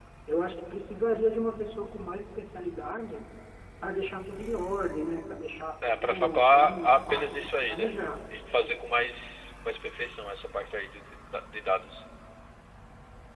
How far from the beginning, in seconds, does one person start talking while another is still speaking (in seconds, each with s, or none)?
5.8 s